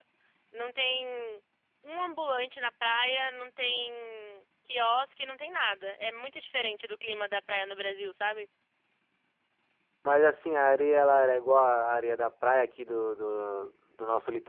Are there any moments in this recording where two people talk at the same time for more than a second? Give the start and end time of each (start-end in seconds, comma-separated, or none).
none